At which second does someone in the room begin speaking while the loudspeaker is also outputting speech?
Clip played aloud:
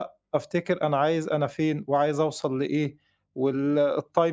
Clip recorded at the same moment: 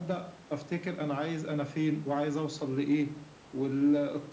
none

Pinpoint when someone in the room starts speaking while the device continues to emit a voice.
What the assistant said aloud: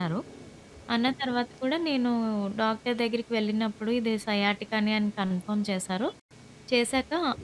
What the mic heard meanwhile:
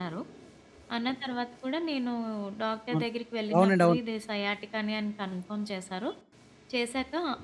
2.9 s

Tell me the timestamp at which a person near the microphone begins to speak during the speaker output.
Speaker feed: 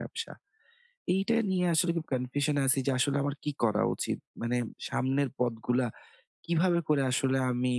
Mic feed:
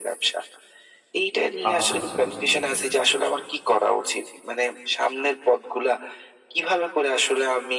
1.7 s

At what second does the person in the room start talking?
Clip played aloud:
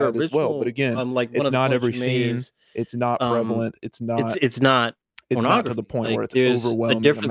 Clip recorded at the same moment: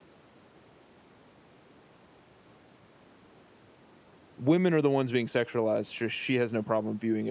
4.4 s

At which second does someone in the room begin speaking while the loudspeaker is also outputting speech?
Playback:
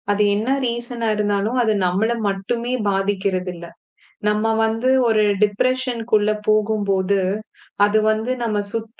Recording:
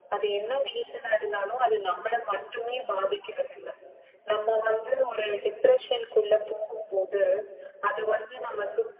none

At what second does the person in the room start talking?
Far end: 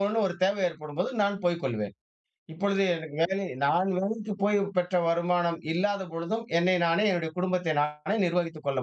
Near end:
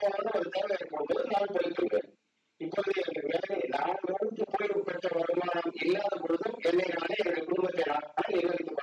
none

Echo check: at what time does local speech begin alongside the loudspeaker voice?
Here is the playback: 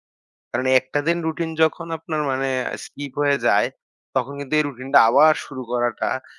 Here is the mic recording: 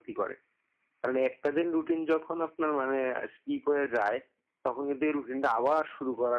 none

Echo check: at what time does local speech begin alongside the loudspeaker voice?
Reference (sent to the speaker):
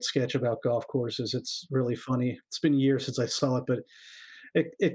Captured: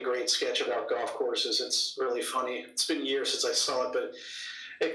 none

